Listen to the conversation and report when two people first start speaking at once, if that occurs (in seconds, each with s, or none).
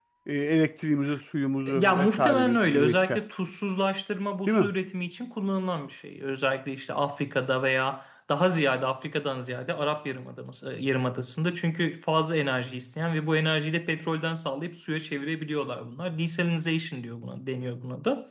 1.7 s